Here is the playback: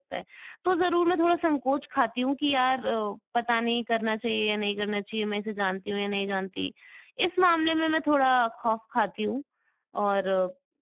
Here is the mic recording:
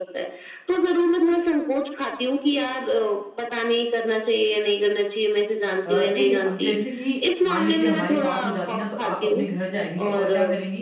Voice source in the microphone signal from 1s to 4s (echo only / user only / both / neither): echo only